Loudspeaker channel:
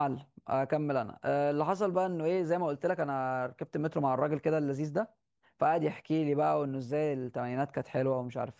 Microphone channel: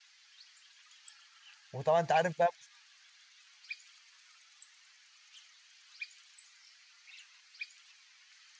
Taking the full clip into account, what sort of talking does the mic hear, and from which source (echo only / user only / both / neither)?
user only